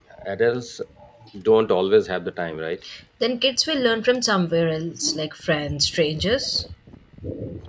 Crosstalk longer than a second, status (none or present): none